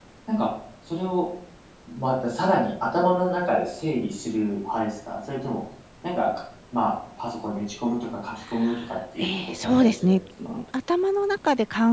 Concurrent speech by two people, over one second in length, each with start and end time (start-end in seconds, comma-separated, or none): 9.2-10.6